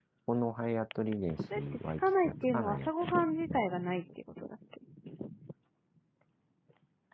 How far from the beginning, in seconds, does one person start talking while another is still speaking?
2 s

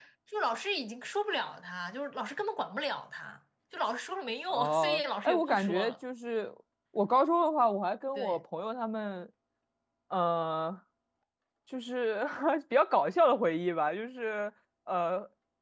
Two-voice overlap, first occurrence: 5 s

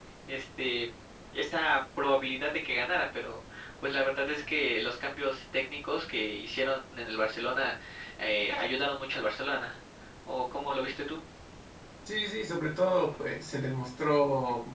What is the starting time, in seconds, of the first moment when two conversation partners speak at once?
none

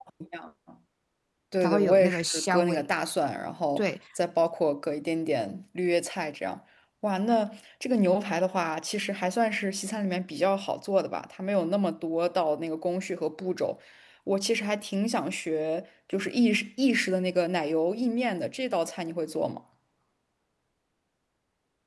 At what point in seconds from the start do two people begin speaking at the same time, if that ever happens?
2 s

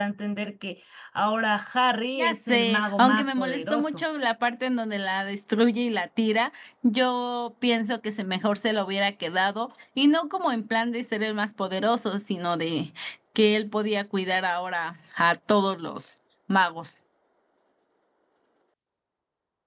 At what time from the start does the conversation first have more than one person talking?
2 s

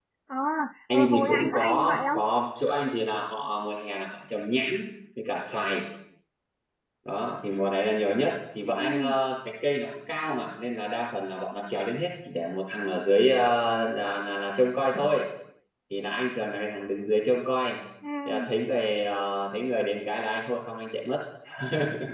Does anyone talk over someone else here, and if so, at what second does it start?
1 s

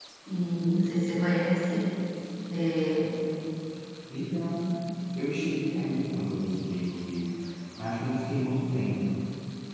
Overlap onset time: none

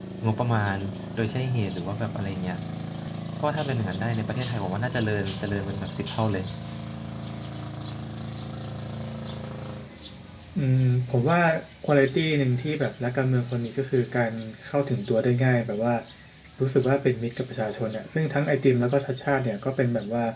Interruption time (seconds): none

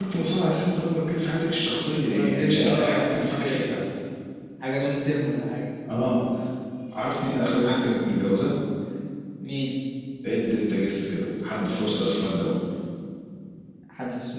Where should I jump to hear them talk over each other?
2 s

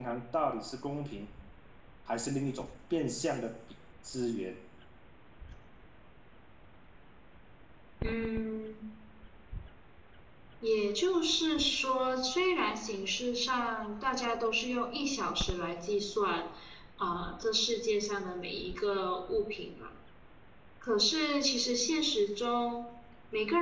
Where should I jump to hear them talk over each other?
none

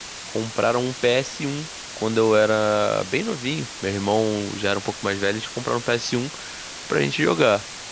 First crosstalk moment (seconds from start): none

